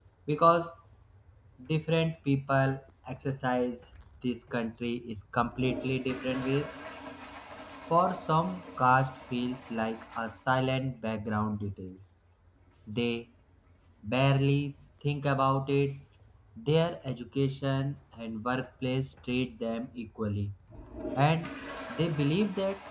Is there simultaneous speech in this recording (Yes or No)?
No